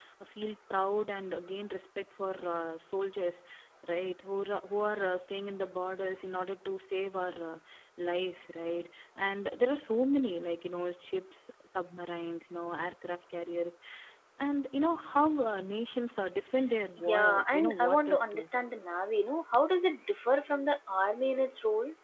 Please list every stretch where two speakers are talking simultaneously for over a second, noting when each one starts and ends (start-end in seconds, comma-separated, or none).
17.0-18.4